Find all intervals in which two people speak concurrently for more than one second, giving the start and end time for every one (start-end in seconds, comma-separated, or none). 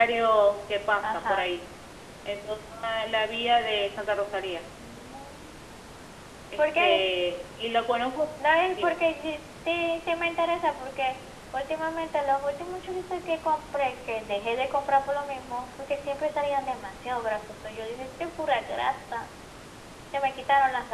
none